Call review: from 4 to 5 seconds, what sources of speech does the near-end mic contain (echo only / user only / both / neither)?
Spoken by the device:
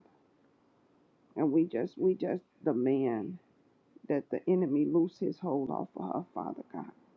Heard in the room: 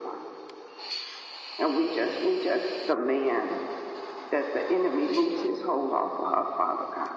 echo only